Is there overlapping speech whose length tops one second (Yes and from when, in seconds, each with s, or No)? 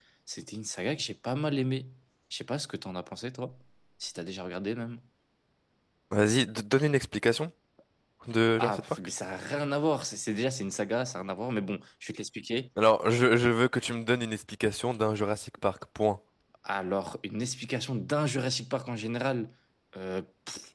No